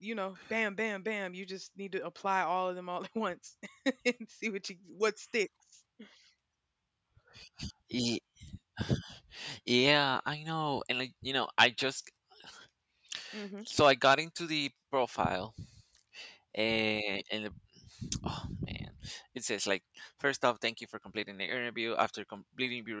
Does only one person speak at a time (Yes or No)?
Yes